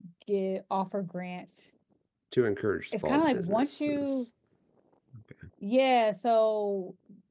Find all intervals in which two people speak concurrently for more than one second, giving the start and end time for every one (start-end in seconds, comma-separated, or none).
2.9-4.2